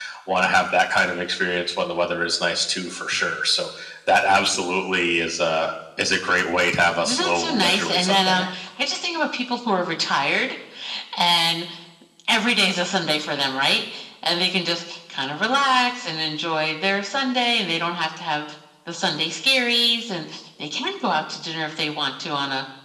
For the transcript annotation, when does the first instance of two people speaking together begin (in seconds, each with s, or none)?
7.1 s